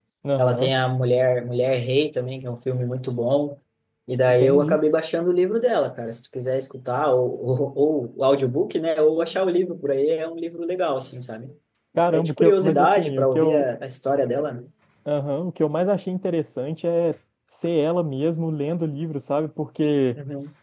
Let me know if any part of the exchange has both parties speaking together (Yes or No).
Yes